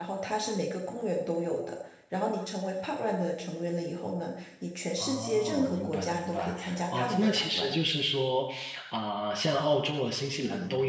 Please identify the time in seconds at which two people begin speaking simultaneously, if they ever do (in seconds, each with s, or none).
5.0 s